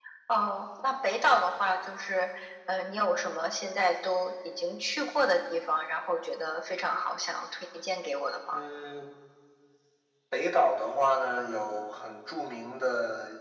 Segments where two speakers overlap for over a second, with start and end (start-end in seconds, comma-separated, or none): none